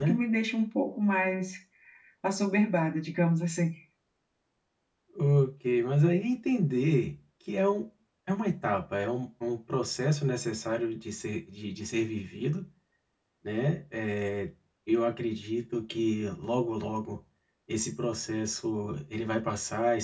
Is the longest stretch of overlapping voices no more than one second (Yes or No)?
Yes